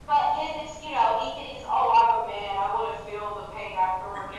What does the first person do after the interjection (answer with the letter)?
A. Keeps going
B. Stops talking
A